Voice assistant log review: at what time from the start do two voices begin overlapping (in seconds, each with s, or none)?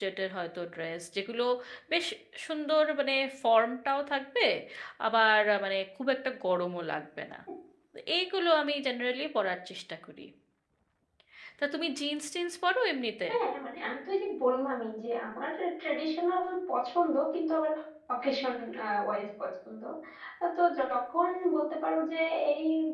none